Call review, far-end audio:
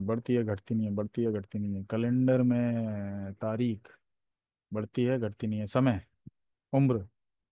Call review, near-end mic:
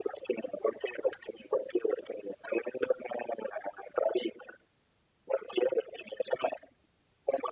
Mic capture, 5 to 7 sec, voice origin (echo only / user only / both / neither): echo only